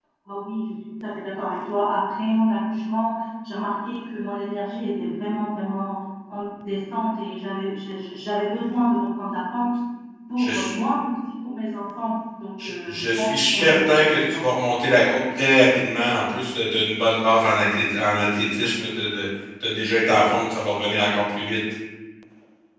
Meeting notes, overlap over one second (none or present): present